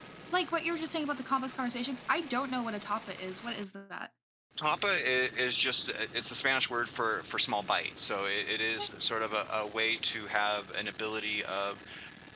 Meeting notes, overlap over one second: none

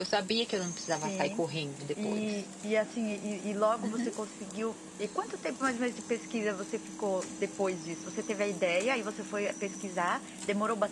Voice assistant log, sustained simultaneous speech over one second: none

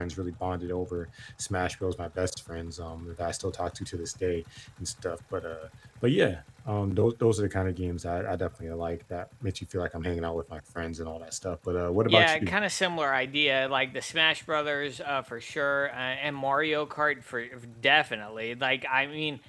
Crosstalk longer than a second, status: none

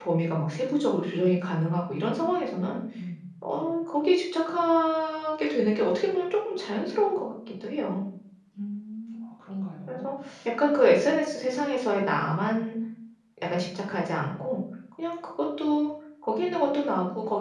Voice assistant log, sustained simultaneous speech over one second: none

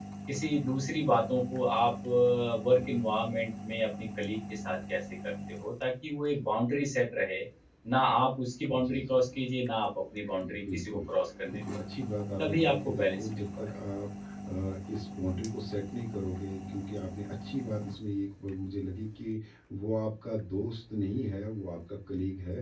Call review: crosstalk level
present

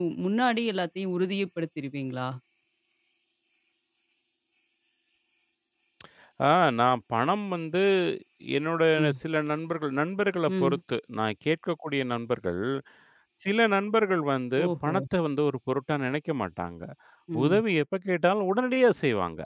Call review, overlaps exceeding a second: none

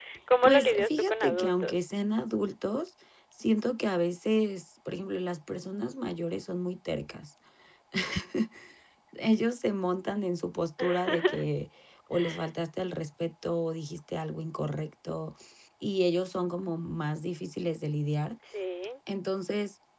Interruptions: present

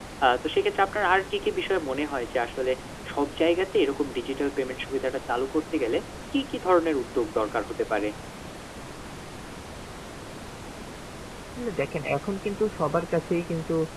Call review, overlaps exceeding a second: none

